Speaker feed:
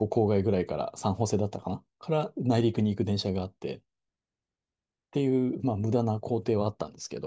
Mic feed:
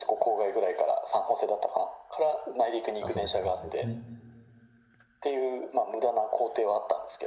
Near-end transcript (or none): 遊べた感じですね。